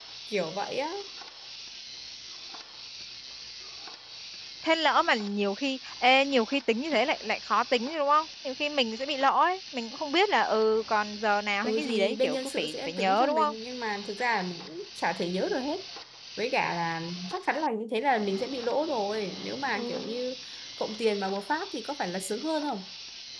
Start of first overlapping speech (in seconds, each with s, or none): 11.6 s